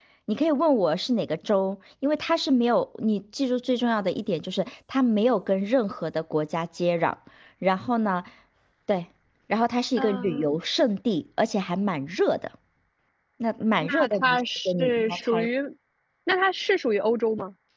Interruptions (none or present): present